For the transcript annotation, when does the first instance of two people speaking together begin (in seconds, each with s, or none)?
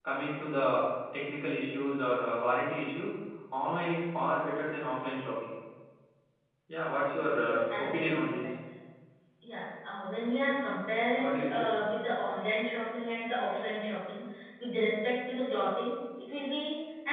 7.2 s